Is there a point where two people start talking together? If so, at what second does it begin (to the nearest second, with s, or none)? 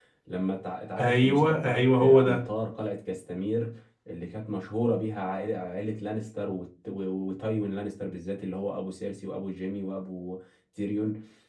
1 s